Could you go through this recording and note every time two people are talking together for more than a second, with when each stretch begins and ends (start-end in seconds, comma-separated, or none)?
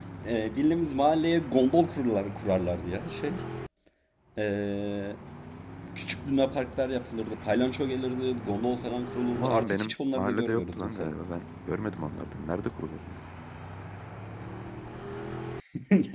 9.3-11.2